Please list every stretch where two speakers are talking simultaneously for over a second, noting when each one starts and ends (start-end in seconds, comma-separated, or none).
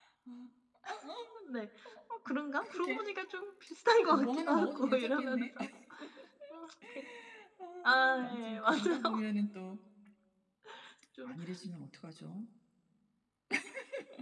4.1-5.5, 7.8-9.2